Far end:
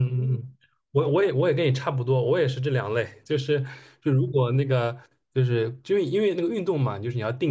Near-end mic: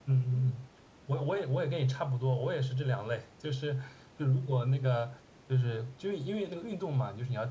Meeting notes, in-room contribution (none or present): none